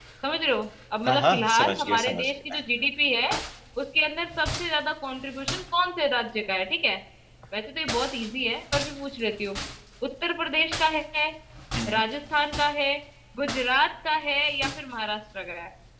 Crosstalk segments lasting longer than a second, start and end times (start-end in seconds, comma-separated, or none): 1.1-2.6